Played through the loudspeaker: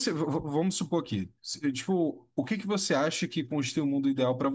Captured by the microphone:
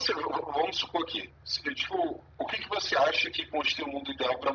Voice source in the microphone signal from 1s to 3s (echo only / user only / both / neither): echo only